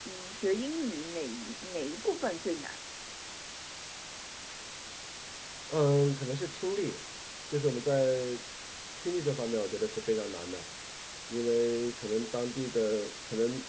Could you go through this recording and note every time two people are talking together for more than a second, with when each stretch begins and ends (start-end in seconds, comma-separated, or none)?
none